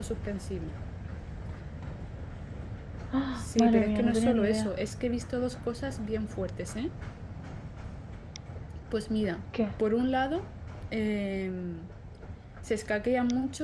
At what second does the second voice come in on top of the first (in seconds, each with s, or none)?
3.4 s